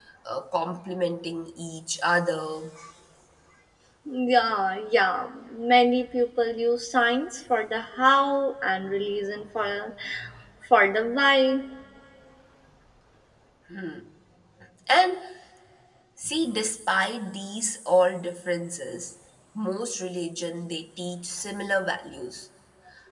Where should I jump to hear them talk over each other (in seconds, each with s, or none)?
none